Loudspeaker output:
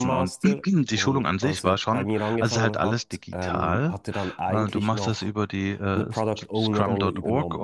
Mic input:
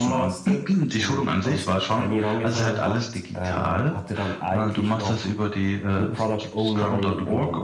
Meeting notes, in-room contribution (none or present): none